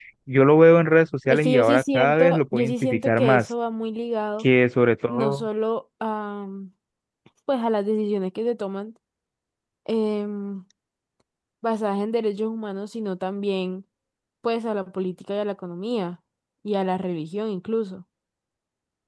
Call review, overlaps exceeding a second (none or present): present